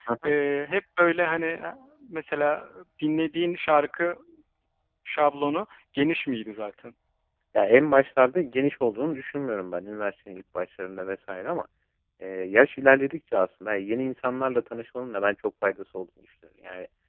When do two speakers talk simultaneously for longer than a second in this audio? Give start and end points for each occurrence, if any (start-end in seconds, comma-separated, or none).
none